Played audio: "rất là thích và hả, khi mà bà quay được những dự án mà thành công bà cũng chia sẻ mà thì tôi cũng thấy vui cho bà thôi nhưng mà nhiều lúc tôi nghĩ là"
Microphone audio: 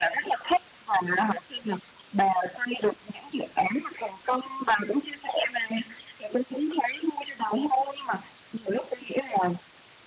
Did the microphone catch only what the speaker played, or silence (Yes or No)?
Yes